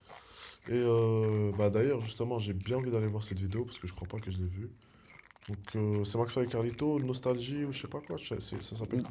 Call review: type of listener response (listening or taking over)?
taking over